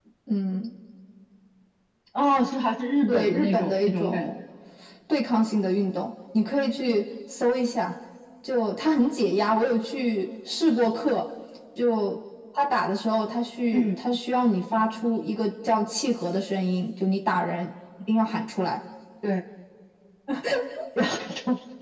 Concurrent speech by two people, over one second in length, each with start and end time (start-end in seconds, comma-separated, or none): 3.1-4.3